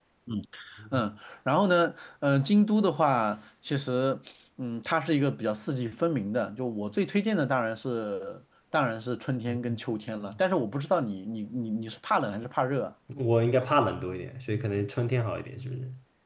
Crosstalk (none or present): none